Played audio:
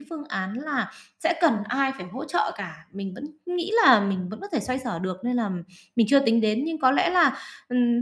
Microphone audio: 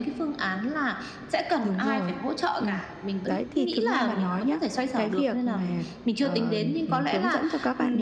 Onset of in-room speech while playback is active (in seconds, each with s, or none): 1.6 s